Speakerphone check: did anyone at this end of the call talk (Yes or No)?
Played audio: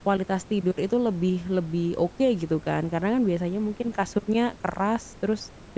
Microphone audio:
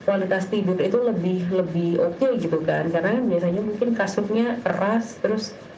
No